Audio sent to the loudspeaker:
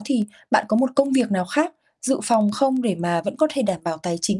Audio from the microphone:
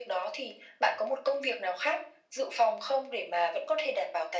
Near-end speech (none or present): none